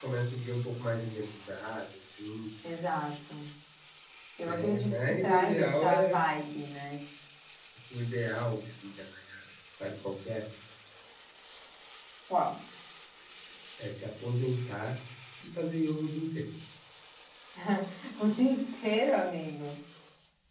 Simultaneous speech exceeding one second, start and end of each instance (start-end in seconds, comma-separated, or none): 4.4-6.1